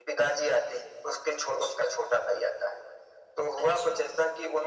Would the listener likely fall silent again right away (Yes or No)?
Yes